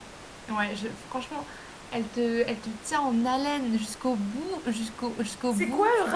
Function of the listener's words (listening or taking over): taking over